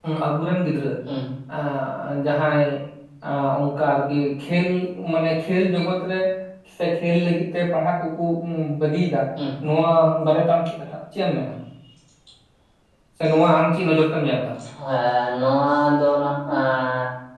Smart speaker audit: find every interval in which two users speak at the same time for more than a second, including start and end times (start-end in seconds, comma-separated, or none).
none